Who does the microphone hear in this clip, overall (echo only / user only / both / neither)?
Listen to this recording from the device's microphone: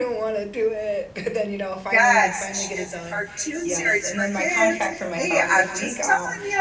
both